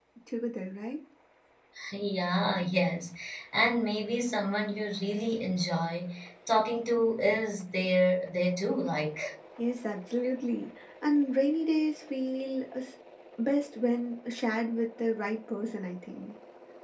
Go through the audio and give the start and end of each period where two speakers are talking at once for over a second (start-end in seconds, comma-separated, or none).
none